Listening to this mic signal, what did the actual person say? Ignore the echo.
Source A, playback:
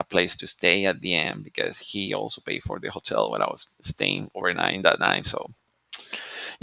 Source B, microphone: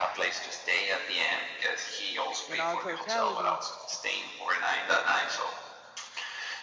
in all totality,

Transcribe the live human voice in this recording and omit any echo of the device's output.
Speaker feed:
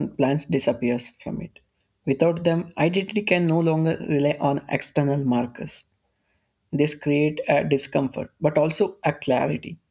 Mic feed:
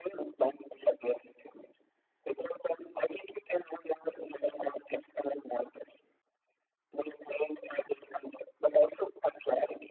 none

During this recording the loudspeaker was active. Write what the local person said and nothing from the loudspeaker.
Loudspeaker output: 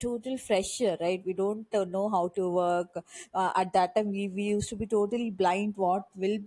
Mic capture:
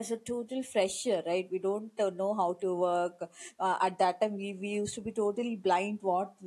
none

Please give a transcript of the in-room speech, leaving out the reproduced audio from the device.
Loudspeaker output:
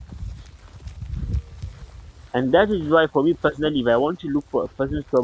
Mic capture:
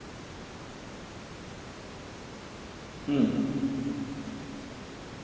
Hmm.

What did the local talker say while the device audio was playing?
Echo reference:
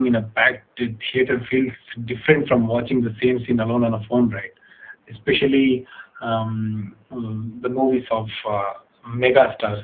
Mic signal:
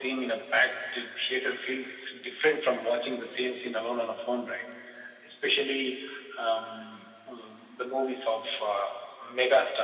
none

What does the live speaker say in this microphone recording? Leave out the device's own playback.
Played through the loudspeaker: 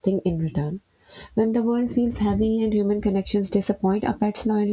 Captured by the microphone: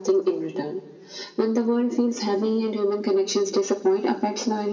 none

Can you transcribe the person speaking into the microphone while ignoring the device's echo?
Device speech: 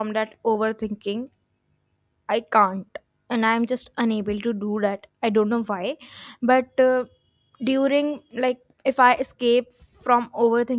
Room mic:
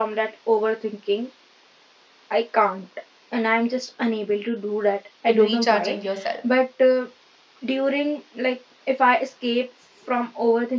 in recharging yourself

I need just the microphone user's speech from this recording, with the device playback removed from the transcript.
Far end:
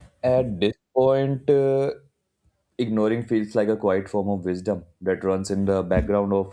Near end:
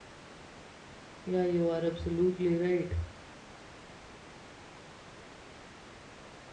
Yeah, you are absolutely right.

